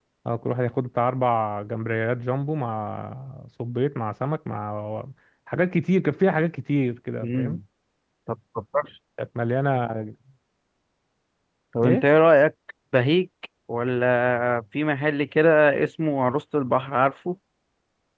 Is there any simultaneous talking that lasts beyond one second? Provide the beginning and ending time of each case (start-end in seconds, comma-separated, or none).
none